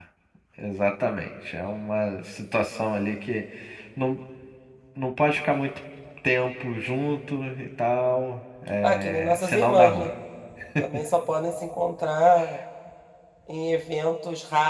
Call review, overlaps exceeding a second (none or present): present